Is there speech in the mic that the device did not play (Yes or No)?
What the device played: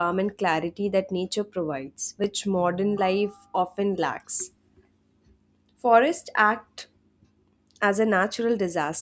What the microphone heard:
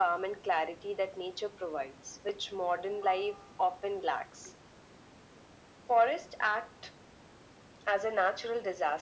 No